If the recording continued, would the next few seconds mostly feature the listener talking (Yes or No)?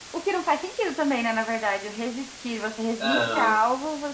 No